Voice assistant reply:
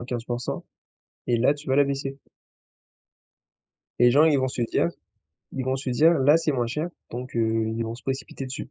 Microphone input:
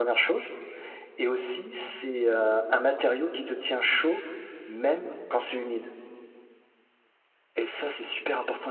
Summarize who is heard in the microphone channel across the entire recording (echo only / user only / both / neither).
user only